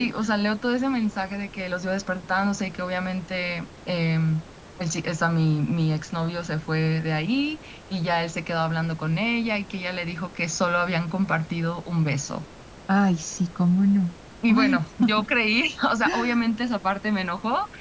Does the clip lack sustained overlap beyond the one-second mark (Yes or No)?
Yes